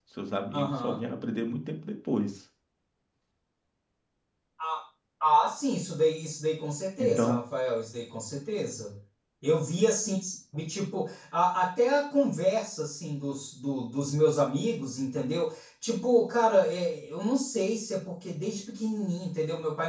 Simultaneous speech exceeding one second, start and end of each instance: none

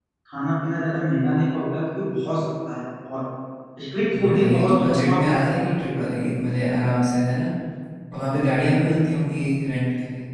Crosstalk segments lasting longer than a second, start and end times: 4.1-5.6

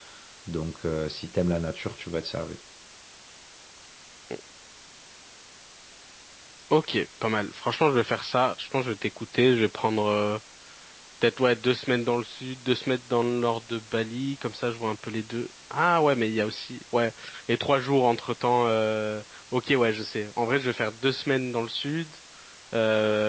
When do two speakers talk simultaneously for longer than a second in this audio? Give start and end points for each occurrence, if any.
none

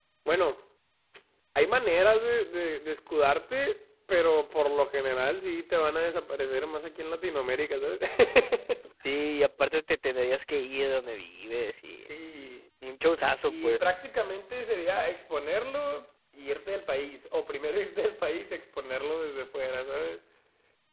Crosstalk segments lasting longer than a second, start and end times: none

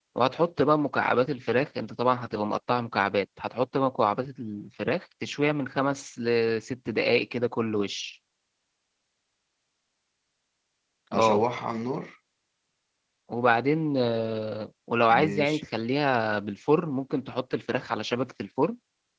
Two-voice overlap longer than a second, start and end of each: none

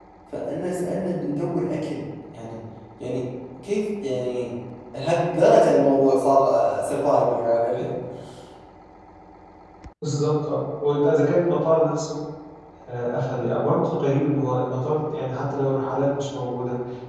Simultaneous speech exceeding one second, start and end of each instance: none

